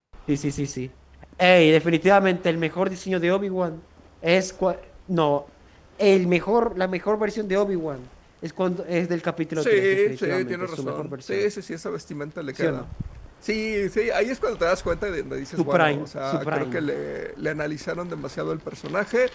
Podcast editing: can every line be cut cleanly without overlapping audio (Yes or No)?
No